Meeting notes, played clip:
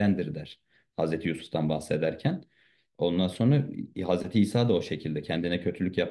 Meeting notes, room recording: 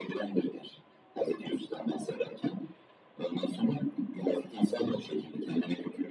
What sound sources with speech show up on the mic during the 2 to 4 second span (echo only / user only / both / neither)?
echo only